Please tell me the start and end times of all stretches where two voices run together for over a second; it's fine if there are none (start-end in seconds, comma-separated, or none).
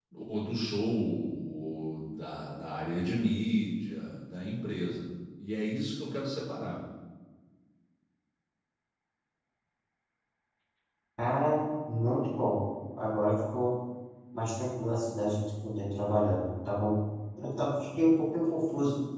none